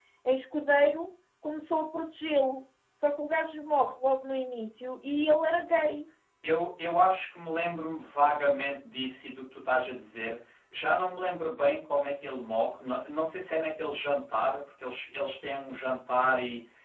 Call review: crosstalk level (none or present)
none